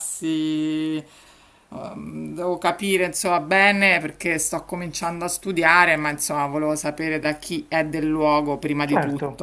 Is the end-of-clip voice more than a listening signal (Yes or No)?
Yes